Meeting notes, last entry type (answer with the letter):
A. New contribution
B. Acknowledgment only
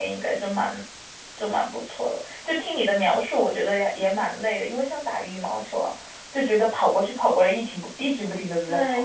A